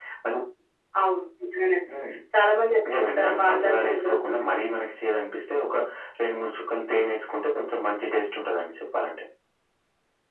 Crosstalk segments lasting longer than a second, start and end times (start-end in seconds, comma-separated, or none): 2.9-4.4